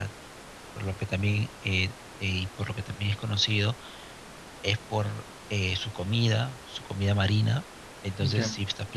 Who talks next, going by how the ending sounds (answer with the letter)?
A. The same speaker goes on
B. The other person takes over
A